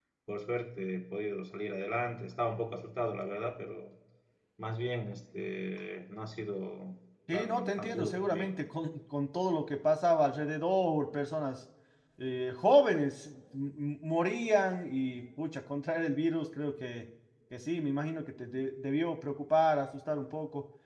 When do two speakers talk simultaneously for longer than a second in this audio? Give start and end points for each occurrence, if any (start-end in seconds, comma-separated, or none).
7.3-8.6